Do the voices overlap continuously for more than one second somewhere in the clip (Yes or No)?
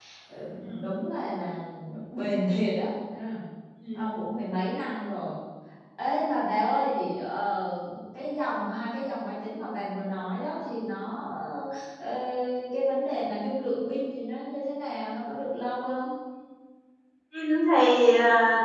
No